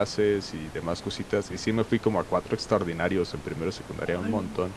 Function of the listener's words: listening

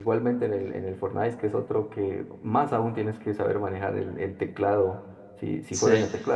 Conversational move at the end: listening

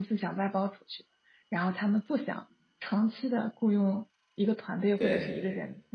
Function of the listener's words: listening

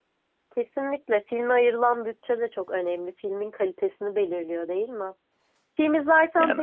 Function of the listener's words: listening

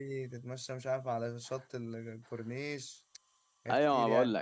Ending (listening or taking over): taking over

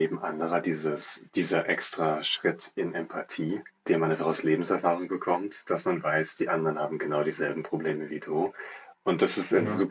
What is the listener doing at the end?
listening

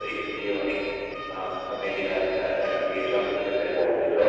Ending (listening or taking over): taking over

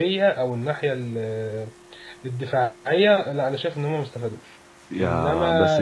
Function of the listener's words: taking over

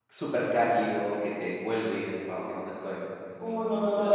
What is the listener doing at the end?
taking over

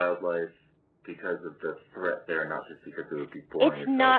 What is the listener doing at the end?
taking over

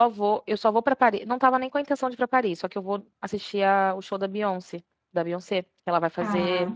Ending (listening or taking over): listening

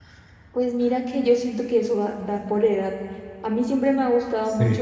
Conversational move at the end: listening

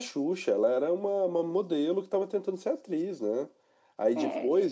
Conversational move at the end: listening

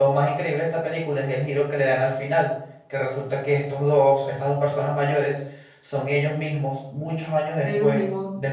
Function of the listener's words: listening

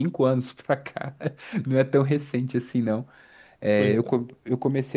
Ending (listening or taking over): listening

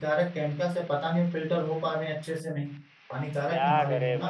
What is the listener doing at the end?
taking over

